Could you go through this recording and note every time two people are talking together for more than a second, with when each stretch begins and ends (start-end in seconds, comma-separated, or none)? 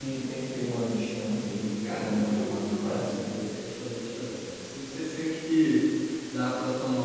1.9-3.3